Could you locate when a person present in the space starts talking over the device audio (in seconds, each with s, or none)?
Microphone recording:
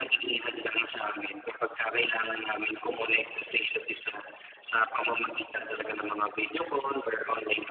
none